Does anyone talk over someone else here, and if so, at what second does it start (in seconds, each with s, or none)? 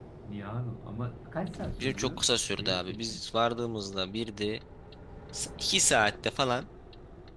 1.8 s